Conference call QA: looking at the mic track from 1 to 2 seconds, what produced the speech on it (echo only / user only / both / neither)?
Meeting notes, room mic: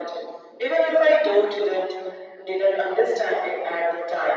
echo only